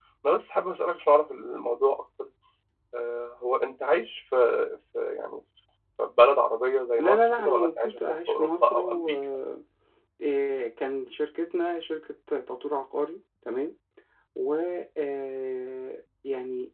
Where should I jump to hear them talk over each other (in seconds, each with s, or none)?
7.0 s